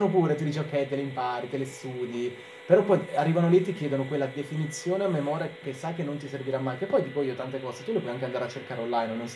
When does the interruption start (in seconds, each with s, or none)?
none